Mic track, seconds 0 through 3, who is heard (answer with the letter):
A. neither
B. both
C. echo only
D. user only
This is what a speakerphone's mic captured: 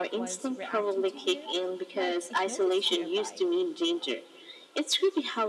B